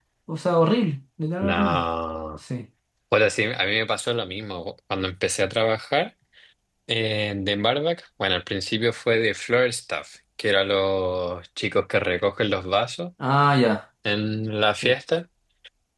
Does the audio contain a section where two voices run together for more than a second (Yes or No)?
No